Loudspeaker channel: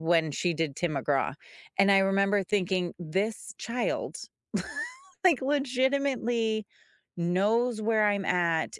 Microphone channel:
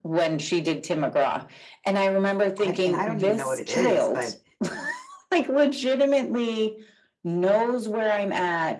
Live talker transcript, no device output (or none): I and I don't even know what it is, but,